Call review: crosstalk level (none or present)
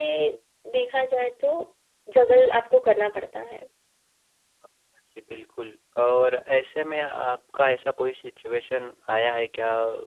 none